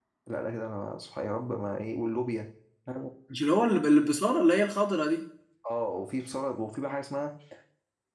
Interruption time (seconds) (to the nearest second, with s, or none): none